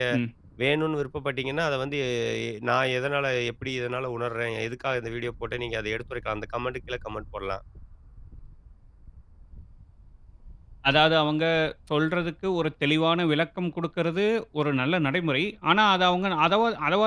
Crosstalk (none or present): none